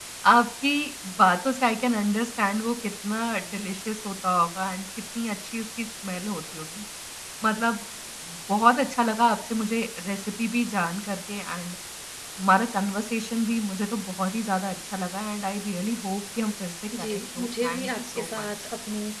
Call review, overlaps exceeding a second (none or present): present